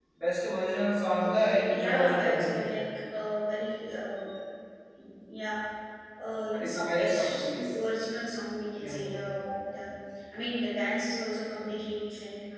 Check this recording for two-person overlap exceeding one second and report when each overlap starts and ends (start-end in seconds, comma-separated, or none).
1.2-2.7, 6.5-7.8